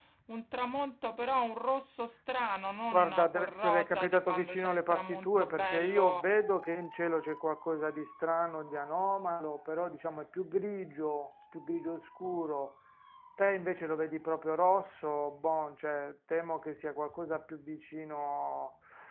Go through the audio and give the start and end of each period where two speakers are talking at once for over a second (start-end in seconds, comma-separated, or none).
2.9-6.2